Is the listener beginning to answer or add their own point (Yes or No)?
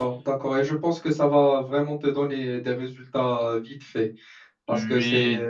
No